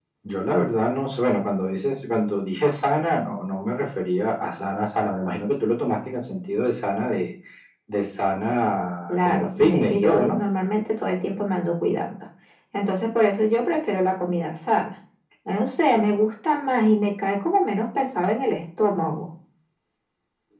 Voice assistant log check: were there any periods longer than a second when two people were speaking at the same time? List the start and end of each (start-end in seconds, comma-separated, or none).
9.1-10.4